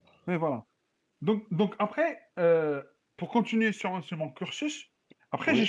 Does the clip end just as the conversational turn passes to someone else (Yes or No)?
No